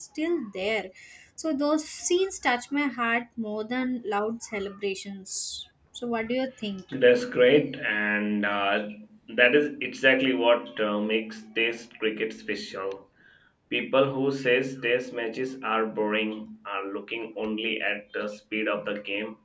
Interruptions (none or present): none